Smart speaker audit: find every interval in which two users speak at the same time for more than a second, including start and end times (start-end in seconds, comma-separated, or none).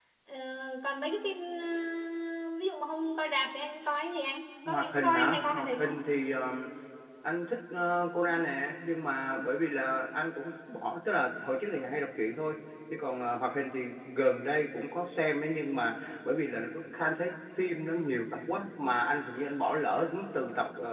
4.7-6.0